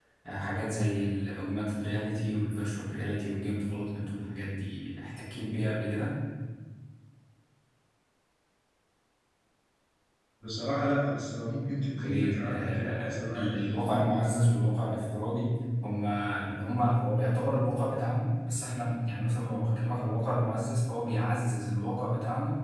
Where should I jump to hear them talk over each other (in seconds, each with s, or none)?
12.0 s